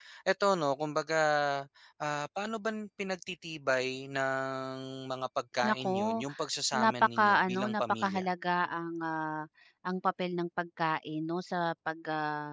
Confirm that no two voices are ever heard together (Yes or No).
No